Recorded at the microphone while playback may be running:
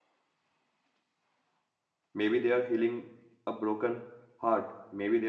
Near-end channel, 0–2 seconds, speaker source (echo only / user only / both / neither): neither